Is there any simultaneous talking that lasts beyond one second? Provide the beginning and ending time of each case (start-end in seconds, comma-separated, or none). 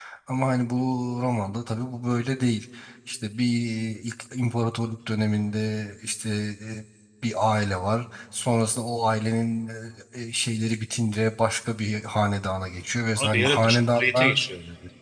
13.2-14.4